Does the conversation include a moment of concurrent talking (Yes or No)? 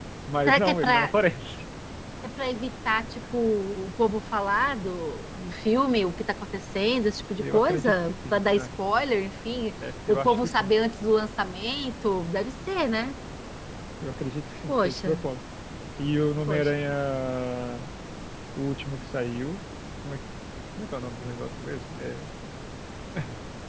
Yes